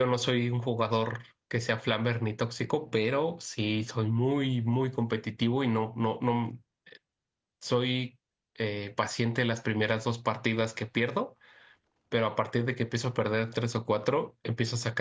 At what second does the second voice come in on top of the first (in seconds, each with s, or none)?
none